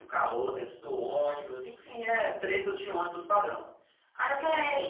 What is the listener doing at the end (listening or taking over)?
taking over